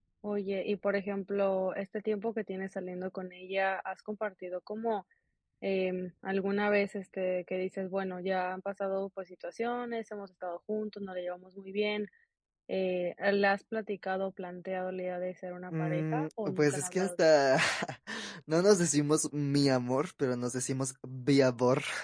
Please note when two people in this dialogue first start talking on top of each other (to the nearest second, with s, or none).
16 s